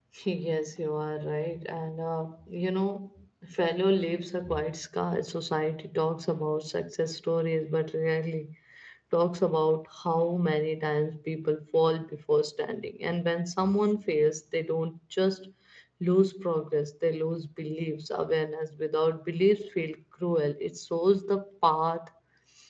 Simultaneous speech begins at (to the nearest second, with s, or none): none